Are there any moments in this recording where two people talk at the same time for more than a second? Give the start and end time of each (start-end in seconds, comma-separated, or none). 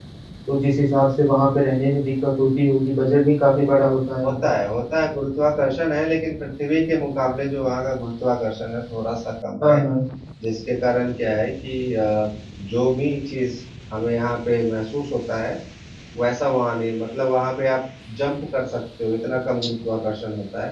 none